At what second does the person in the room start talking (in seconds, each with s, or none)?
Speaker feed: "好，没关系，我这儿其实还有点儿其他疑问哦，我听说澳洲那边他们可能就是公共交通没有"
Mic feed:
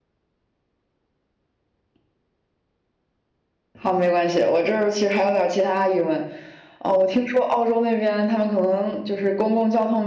none